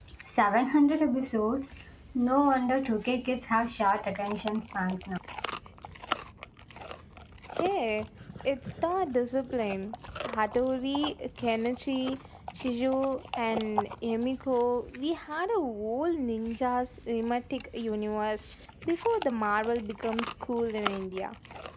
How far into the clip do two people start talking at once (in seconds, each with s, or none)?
none